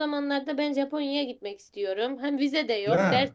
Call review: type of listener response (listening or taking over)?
listening